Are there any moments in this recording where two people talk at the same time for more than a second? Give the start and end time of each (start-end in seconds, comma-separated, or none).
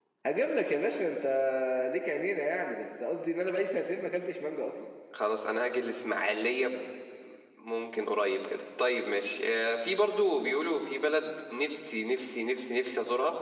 none